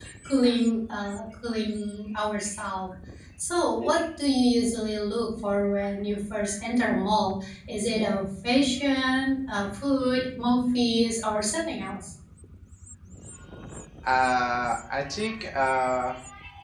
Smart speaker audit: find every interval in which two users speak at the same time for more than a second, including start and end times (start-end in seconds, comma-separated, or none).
none